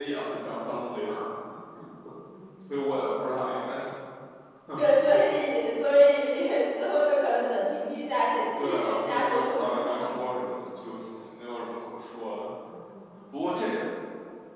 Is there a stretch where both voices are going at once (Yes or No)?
Yes